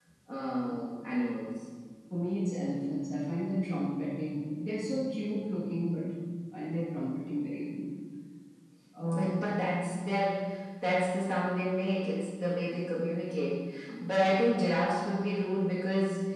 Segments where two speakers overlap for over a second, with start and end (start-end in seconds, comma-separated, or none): none